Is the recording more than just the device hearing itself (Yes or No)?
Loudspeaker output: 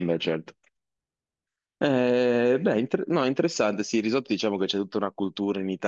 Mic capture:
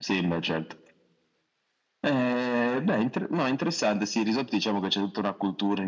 No